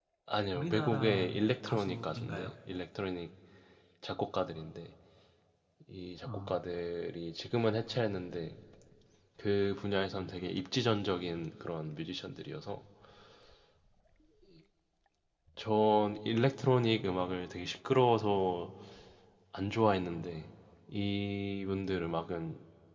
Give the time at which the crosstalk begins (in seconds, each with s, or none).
0.5 s